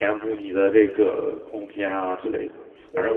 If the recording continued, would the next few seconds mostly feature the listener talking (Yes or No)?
No